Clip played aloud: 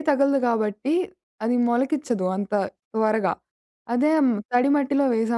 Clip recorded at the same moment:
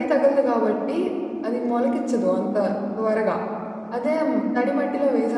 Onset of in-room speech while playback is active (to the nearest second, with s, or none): none